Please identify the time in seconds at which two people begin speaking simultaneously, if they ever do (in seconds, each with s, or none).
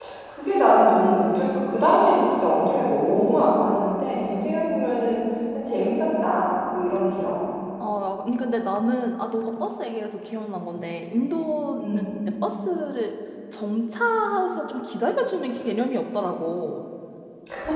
none